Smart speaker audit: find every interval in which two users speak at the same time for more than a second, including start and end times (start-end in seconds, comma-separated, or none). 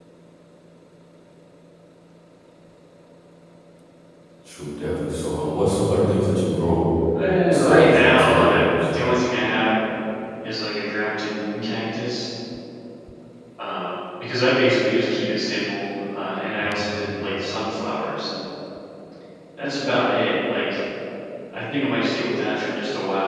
7.5-8.7